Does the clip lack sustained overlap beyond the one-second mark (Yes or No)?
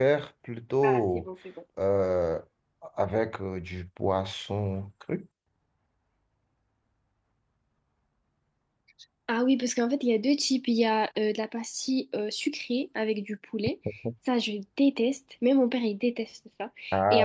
Yes